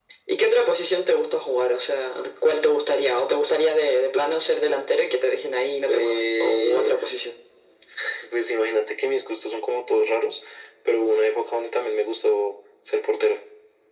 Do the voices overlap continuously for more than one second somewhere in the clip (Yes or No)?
Yes